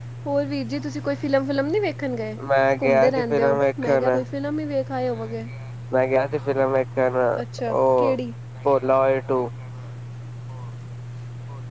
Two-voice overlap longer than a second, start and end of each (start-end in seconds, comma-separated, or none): 2.8-4.2